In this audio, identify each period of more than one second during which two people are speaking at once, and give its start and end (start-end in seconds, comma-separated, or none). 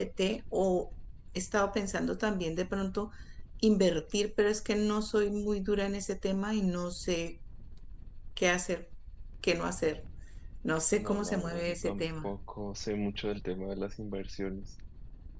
10.9-12.3